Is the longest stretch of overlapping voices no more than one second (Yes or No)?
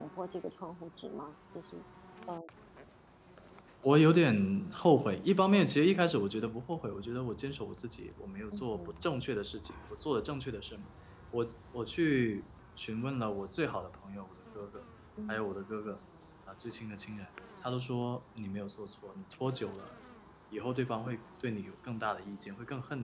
Yes